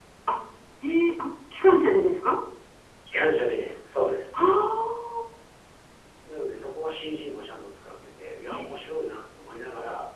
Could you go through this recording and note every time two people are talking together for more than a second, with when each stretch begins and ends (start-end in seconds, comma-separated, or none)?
none